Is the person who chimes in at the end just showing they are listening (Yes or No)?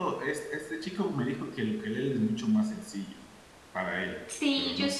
No